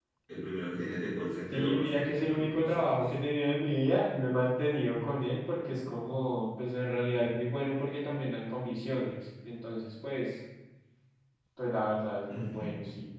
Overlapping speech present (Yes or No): Yes